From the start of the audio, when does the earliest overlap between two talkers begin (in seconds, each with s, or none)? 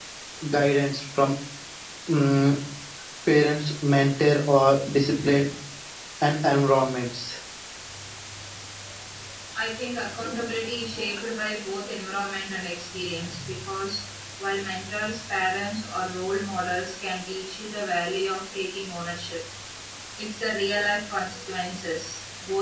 none